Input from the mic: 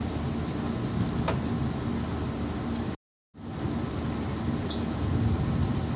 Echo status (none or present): none